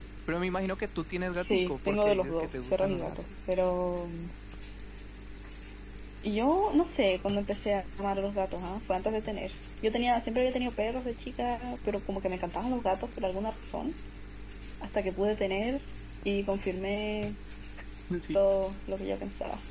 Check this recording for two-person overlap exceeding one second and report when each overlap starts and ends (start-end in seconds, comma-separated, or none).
1.3-3.2